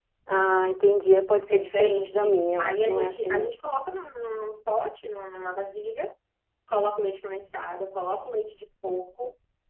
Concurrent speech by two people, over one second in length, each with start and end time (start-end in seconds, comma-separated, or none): 1.5-3.5